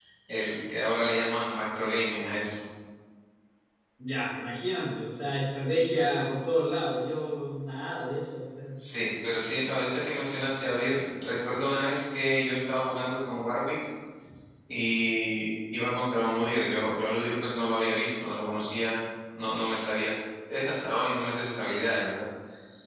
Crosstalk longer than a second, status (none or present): none